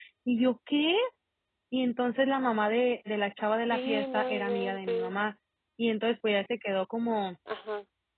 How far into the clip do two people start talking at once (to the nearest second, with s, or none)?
4 s